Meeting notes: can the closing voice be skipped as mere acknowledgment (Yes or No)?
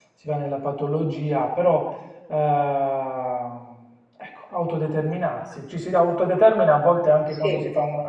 Yes